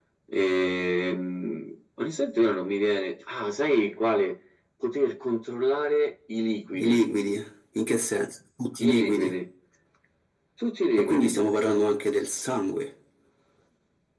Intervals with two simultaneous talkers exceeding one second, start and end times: none

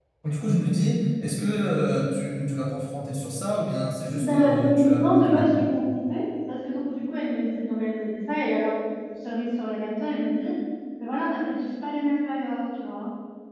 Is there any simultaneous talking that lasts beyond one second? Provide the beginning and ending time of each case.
4.1-5.7

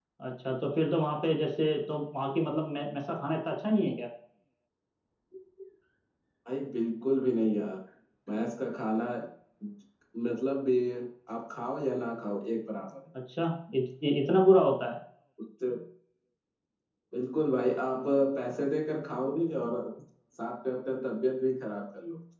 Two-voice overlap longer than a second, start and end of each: none

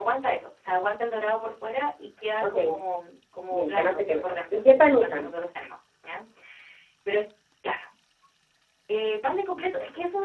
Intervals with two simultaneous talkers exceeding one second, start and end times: 3.5-5.3

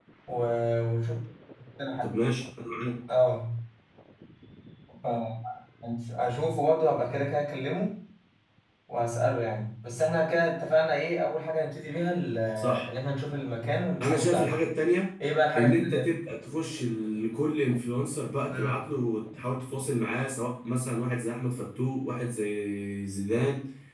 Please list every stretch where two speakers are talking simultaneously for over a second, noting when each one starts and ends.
none

